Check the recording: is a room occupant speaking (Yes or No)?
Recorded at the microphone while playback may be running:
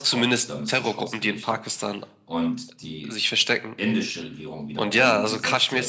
Yes